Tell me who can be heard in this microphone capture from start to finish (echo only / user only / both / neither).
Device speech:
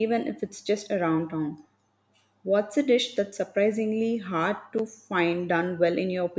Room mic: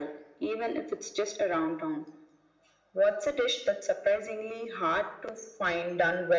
echo only